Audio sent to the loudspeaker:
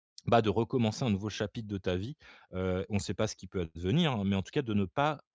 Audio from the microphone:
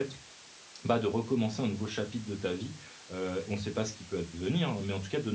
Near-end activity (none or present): none